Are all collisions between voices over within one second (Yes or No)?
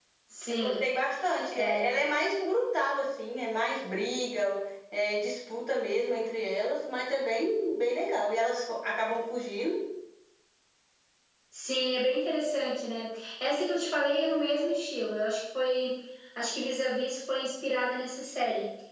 Yes